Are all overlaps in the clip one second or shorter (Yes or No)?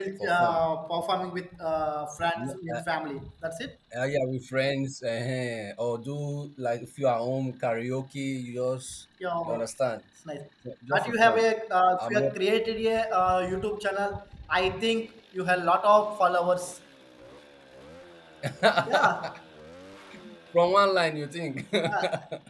Yes